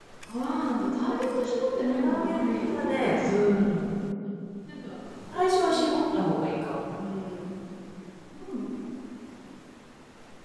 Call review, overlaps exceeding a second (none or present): present